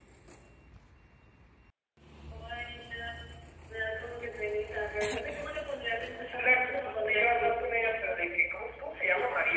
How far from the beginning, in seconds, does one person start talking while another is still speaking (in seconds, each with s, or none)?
6.0 s